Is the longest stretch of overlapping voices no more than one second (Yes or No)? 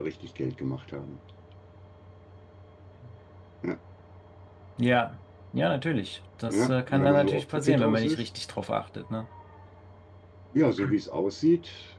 No